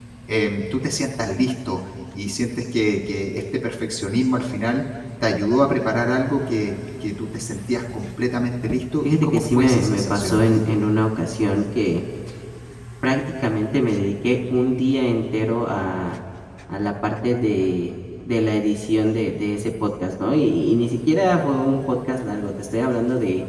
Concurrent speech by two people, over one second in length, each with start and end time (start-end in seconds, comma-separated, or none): 9.0-10.4